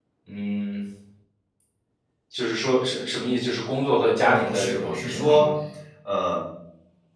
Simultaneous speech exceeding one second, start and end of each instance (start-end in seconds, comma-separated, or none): 4.3-5.5